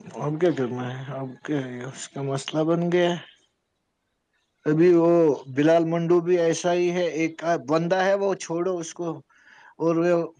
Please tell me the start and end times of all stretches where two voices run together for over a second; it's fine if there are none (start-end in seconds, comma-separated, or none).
none